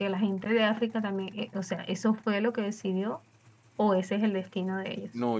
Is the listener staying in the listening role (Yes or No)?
No